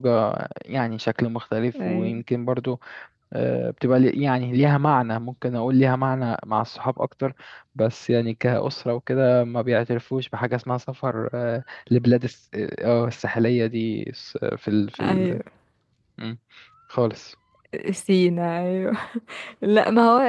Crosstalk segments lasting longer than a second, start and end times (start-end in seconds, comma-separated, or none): none